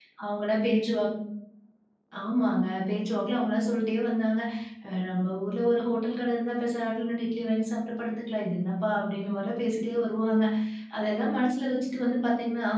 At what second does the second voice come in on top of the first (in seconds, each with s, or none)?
none